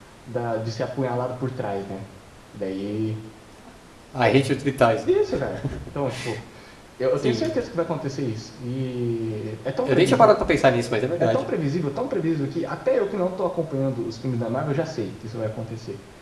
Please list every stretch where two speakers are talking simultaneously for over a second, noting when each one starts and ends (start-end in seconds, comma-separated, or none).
none